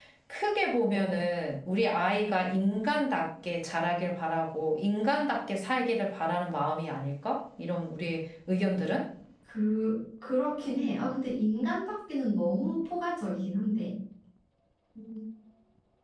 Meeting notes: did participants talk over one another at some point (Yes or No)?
No